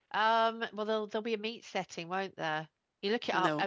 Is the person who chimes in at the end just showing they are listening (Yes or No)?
Yes